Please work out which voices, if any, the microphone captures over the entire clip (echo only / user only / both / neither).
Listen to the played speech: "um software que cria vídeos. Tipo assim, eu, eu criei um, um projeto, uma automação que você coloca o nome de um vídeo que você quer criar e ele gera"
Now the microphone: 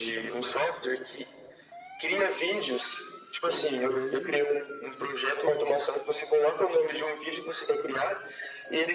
both